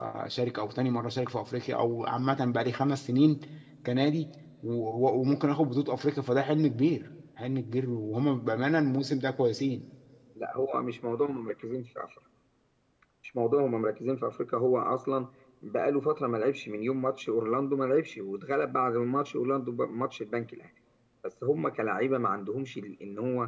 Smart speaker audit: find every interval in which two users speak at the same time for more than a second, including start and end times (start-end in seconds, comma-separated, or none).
none